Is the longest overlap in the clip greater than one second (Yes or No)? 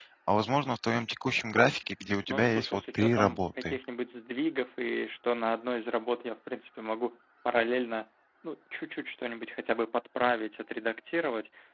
Yes